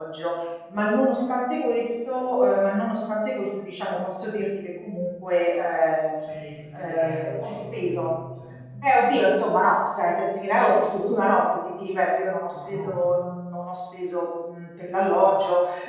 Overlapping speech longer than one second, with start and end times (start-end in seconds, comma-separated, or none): 6.8-8.1